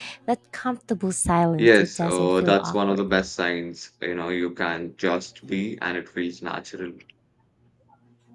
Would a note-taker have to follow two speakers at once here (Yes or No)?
Yes